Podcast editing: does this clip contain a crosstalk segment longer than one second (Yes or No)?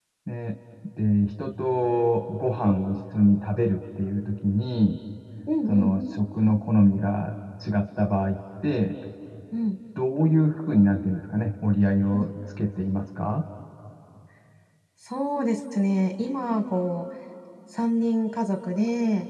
No